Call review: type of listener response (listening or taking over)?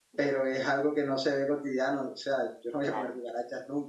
listening